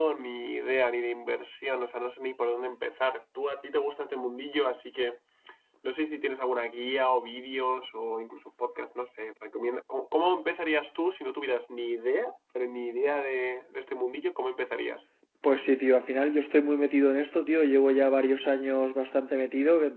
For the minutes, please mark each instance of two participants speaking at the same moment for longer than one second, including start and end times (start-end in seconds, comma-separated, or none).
none